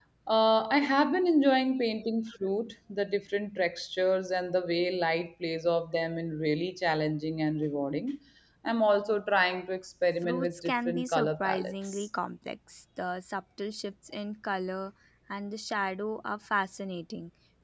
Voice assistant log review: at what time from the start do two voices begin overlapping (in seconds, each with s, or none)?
10.2 s